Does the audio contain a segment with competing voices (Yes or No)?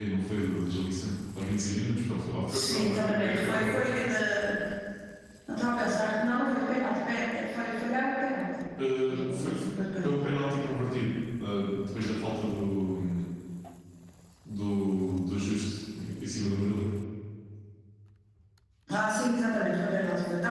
Yes